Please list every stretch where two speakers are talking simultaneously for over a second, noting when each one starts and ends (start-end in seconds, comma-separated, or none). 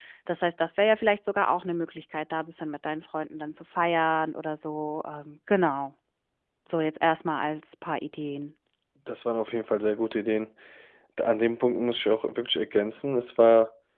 none